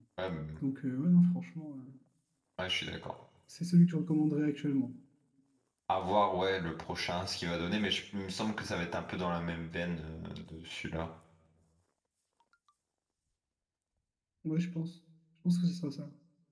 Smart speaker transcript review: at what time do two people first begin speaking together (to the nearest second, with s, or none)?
none